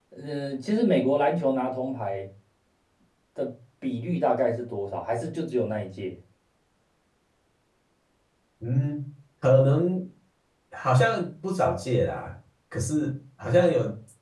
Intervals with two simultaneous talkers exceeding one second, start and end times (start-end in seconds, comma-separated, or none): none